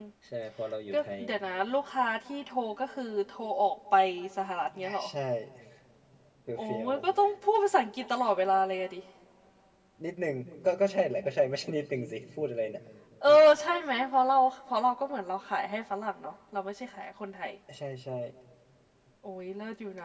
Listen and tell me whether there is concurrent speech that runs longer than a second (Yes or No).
No